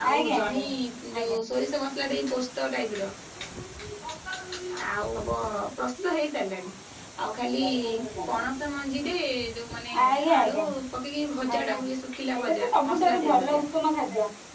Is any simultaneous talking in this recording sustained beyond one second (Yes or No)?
Yes